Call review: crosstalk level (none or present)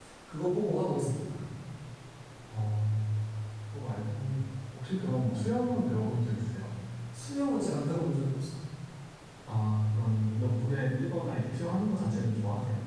none